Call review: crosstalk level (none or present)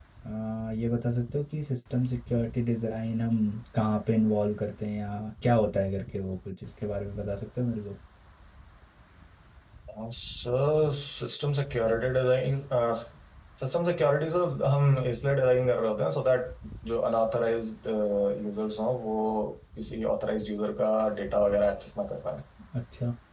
none